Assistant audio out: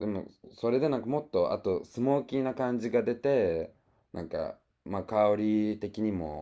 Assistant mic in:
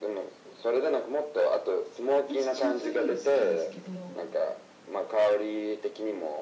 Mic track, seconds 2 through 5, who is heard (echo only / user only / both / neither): both